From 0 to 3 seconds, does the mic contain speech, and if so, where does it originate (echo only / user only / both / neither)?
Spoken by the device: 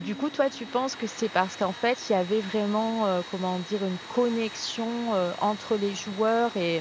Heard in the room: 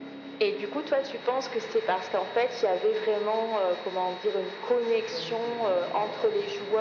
echo only